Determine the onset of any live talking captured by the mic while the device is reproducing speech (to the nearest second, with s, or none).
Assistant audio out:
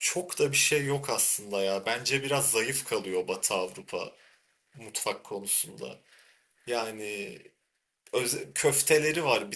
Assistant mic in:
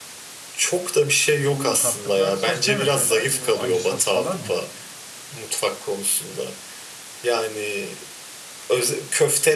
2 s